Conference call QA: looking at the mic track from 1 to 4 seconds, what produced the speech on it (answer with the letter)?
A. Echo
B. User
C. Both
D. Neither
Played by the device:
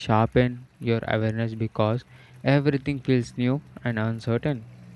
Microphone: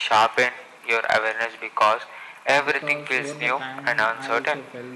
C